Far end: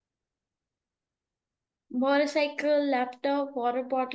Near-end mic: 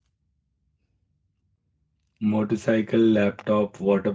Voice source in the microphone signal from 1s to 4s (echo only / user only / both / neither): user only